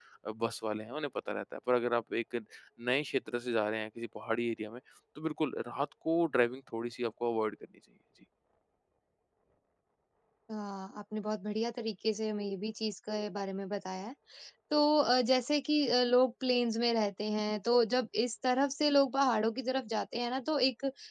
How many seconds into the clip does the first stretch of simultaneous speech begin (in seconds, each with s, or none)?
none